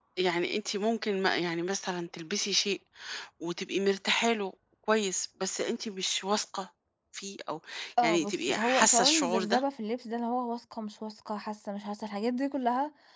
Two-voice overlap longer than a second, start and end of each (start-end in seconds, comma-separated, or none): 8.0-9.6